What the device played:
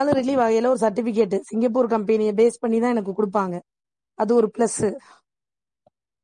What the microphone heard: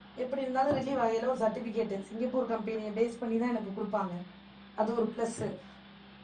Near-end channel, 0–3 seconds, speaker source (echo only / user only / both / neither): echo only